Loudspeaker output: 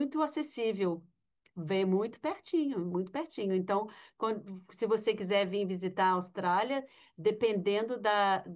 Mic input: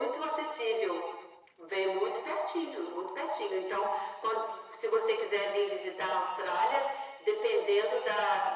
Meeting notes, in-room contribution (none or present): none